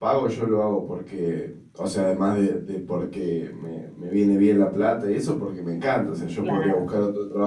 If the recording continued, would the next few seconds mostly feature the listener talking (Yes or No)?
No